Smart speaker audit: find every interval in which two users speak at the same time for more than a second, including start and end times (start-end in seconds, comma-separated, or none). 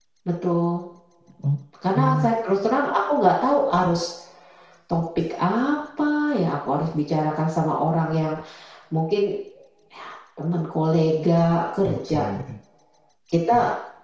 none